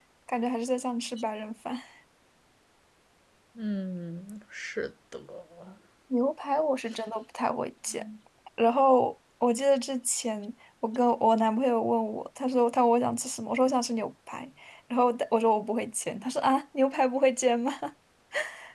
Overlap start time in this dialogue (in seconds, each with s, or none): none